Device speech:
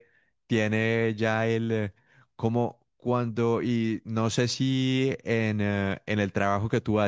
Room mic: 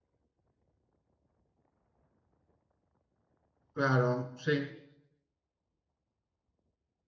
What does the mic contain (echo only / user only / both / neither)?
user only